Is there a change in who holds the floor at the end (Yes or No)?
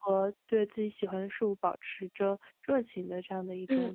Yes